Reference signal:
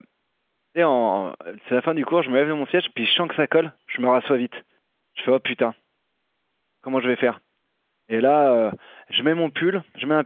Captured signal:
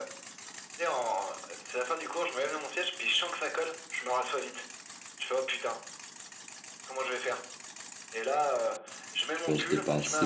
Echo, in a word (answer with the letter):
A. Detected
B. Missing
A